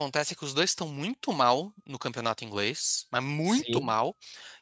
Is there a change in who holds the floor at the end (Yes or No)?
No